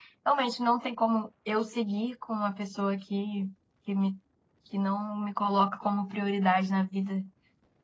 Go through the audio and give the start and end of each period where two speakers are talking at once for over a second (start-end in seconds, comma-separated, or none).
none